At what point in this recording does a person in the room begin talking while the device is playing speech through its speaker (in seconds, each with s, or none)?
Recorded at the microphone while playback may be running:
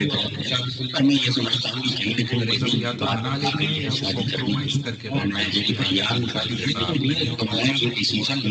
2.3 s